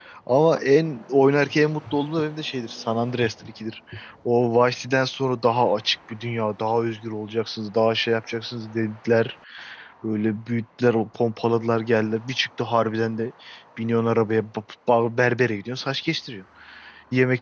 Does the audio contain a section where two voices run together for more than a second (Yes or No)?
No